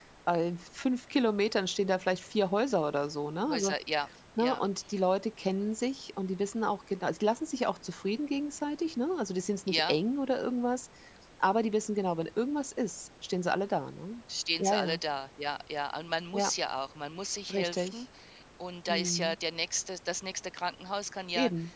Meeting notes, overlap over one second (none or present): none